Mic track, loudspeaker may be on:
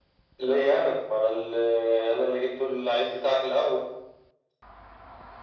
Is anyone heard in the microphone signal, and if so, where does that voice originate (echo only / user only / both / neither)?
echo only